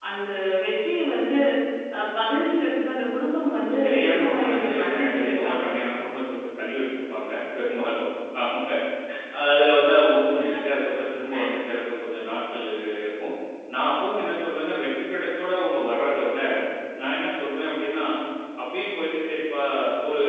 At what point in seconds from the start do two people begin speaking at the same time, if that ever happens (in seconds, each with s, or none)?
3.8 s